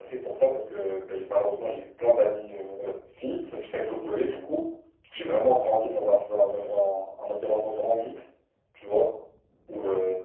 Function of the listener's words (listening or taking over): listening